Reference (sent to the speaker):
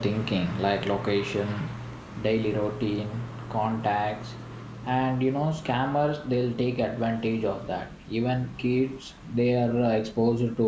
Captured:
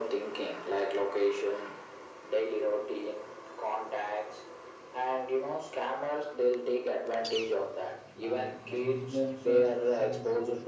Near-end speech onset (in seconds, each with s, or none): 8.2 s